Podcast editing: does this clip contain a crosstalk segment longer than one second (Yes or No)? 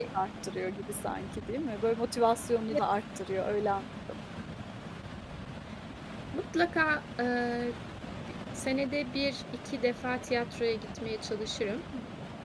No